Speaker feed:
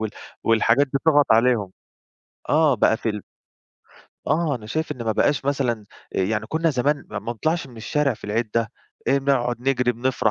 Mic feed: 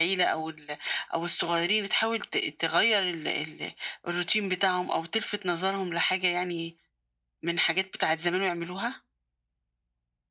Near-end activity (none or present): present